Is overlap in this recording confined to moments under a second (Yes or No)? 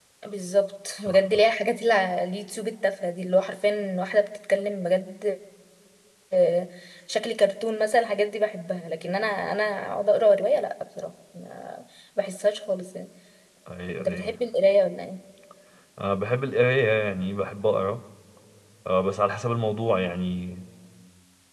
Yes